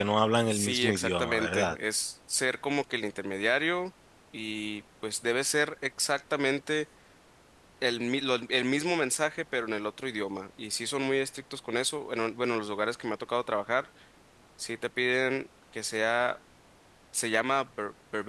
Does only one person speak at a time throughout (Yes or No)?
No